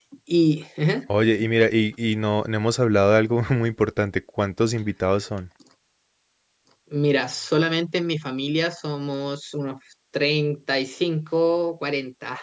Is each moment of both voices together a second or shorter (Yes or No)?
Yes